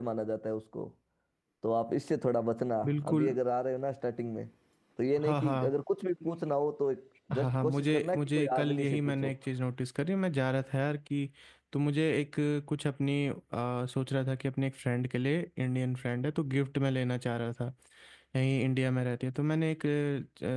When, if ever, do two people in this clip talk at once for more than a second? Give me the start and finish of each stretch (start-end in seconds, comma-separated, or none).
7.4-9.3